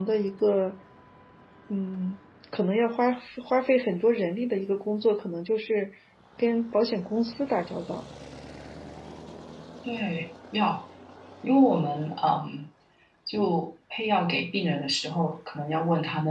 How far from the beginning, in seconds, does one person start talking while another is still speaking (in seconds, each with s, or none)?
none